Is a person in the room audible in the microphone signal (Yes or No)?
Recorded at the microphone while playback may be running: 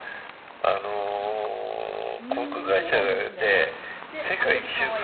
Yes